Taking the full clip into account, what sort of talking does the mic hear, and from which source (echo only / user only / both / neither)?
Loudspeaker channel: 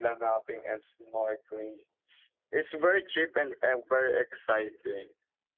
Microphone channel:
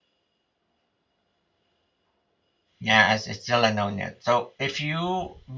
user only